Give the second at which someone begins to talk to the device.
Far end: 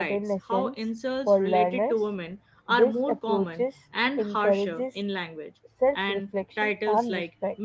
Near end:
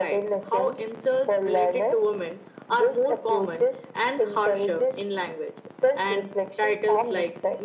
none

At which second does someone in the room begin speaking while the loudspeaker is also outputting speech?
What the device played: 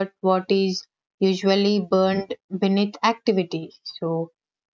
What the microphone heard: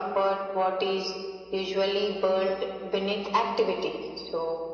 none

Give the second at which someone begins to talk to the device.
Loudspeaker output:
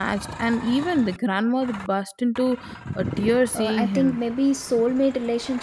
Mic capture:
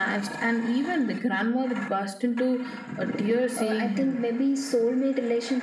none

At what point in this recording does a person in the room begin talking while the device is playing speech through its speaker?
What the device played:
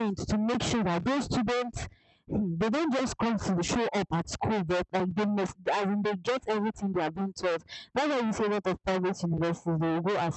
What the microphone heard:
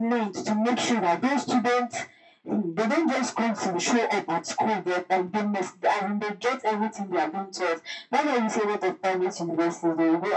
none

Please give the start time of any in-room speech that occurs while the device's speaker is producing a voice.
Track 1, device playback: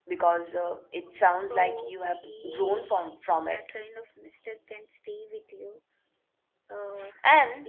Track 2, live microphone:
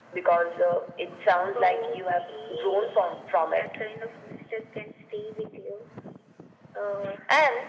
none

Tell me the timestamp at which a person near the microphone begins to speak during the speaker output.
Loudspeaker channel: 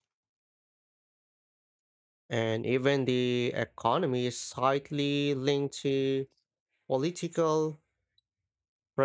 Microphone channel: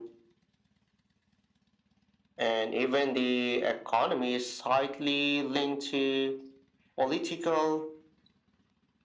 none

